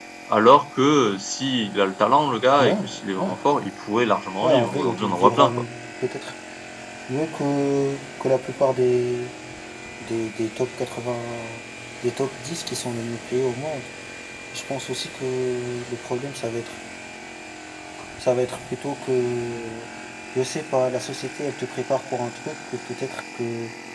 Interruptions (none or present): present